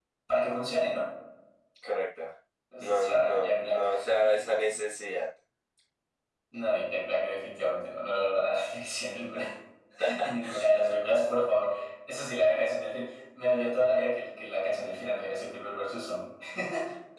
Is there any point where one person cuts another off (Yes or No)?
Yes